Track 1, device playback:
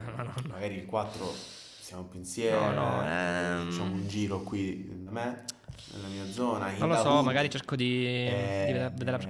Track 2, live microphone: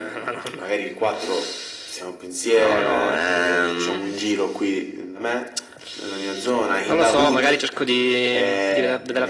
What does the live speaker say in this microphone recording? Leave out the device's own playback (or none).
none